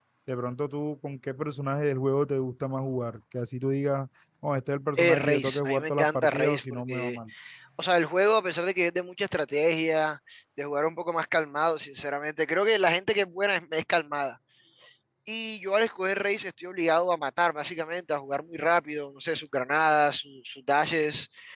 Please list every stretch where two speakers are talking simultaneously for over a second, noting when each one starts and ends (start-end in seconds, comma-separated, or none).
5.0-7.2